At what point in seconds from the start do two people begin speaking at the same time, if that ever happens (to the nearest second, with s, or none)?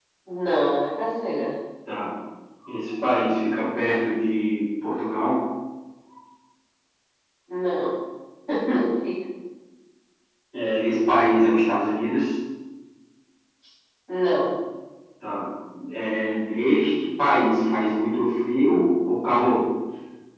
none